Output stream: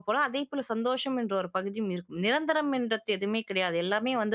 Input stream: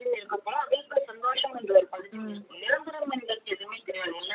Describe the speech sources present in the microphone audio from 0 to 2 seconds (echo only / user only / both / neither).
echo only